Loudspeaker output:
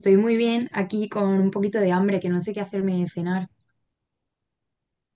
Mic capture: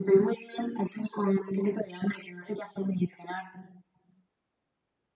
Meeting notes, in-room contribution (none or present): none